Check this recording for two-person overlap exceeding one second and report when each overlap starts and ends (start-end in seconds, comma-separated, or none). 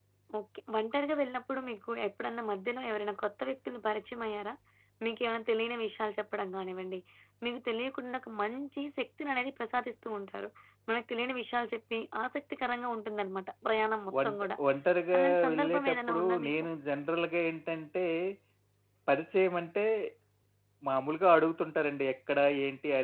15.2-16.5